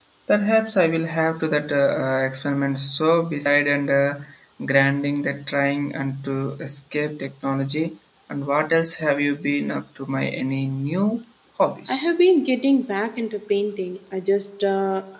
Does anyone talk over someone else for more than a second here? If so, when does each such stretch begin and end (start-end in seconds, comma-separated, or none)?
none